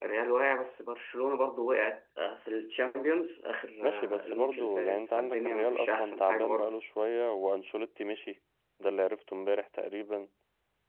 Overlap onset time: 3.8 s

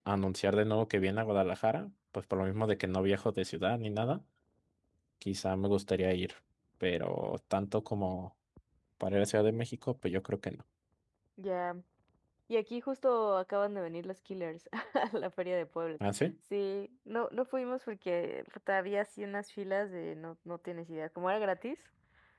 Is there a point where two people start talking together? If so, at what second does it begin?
none

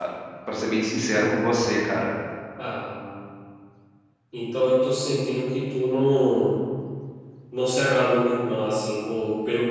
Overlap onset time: none

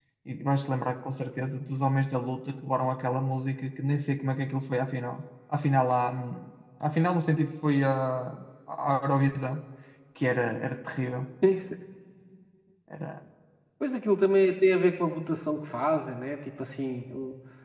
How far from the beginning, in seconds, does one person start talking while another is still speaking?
none

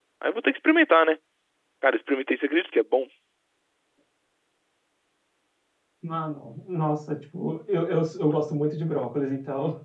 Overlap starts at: none

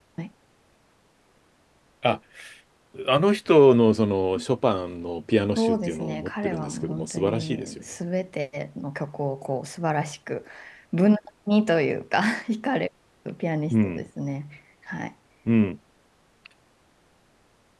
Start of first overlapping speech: 5.6 s

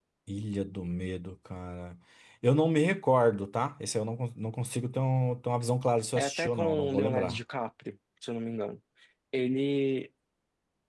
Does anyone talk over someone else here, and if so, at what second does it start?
6.2 s

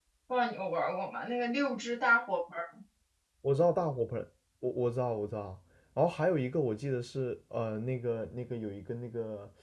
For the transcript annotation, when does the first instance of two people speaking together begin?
none

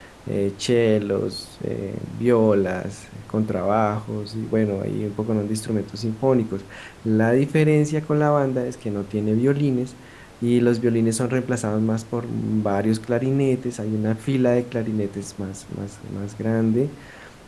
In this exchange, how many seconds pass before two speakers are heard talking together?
none

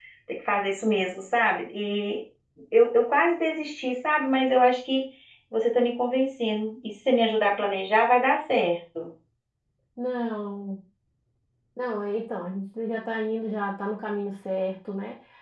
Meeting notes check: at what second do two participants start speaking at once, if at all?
none

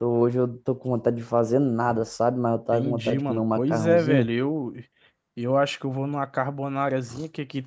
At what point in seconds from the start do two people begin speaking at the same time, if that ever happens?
2.7 s

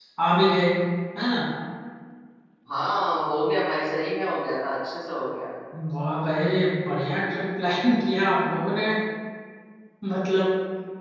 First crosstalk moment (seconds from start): none

